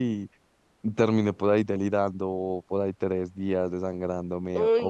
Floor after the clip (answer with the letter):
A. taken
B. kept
A